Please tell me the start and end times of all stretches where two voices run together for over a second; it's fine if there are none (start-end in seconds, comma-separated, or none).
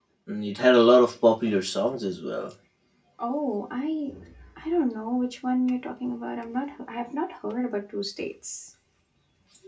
none